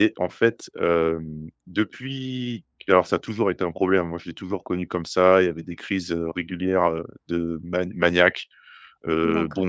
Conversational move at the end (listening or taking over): listening